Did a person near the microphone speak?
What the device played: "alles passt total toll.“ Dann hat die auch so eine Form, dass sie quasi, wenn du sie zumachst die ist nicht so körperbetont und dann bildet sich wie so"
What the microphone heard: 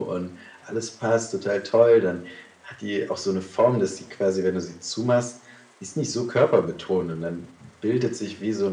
No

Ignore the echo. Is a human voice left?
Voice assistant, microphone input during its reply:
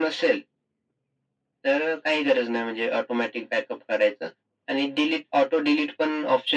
No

